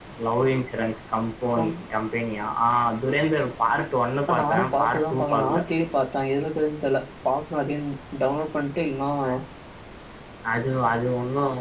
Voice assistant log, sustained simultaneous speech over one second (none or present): present